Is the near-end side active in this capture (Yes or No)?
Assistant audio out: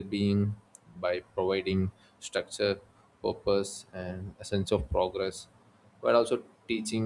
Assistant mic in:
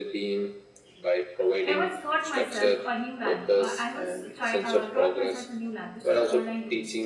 Yes